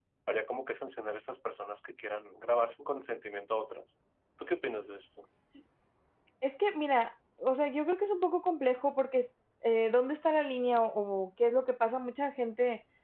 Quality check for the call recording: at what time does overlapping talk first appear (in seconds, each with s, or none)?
none